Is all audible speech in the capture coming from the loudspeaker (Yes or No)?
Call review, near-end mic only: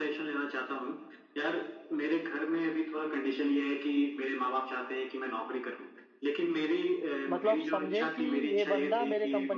No